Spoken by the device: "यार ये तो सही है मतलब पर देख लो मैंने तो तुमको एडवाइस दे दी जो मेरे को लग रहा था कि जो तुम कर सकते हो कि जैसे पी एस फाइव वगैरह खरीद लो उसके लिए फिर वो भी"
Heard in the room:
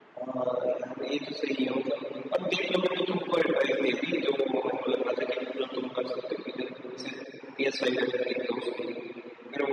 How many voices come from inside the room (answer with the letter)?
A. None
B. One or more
A